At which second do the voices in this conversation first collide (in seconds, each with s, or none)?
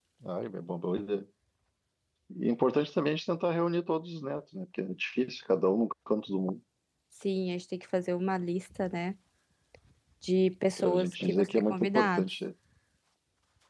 10.8 s